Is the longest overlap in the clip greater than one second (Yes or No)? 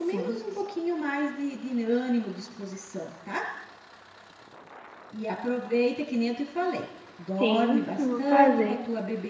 Yes